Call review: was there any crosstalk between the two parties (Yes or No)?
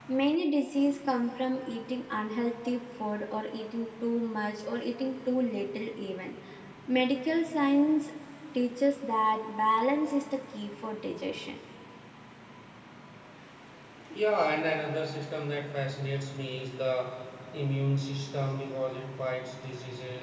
No